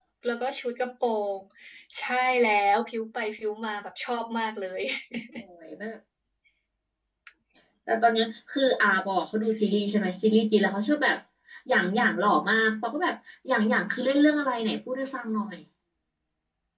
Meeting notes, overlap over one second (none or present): none